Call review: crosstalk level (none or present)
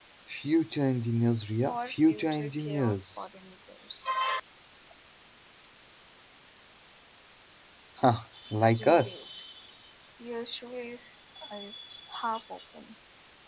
present